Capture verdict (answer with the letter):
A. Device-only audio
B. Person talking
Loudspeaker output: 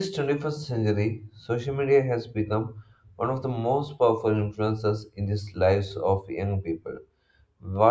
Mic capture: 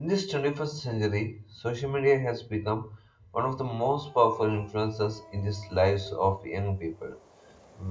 A